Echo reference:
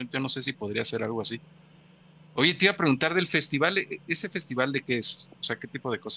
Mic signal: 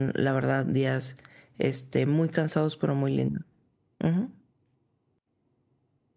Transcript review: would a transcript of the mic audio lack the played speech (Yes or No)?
Yes